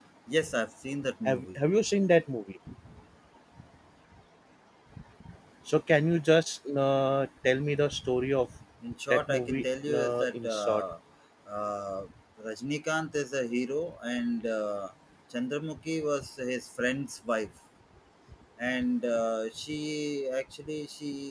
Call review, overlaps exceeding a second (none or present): present